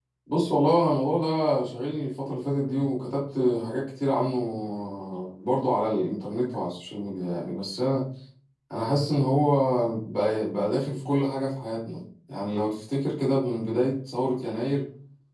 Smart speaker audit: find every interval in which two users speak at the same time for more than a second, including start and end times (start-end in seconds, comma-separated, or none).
none